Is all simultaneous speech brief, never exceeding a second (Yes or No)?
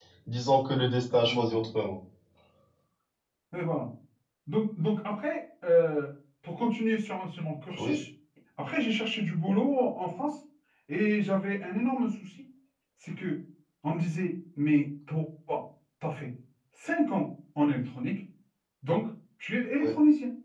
Yes